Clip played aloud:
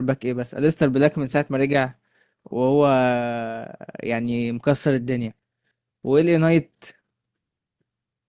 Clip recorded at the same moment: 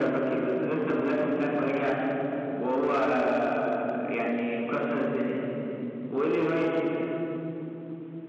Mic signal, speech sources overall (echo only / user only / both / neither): echo only